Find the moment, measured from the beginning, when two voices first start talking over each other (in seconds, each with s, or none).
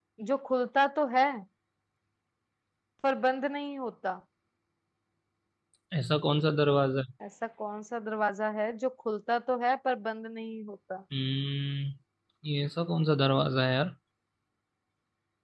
none